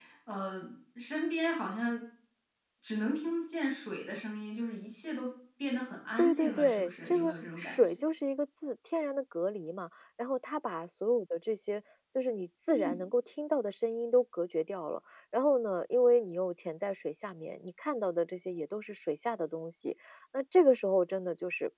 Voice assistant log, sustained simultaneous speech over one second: present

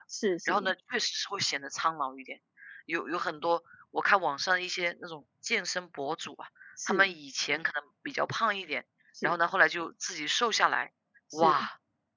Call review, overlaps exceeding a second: none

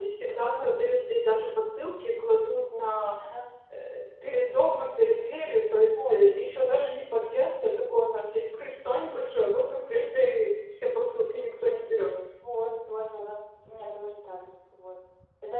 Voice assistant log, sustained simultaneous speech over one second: none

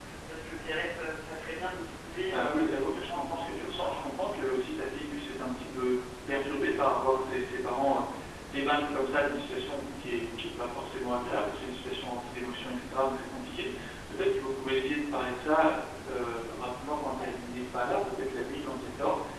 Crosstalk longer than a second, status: present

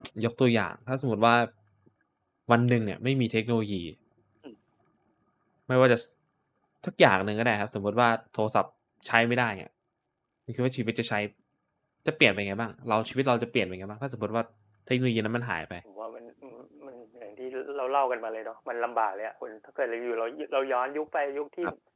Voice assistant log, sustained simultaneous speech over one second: none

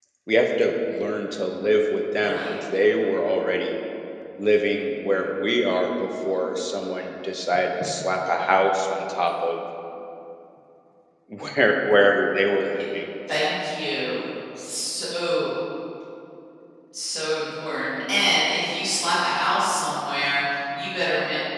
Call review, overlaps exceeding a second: none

